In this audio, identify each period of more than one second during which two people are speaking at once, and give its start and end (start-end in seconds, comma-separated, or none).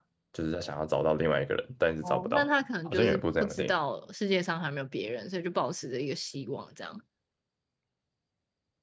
2.0-3.7